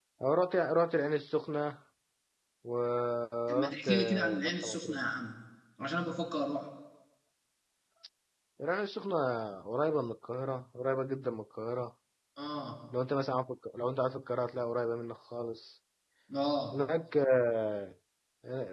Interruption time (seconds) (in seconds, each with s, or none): 3.5 s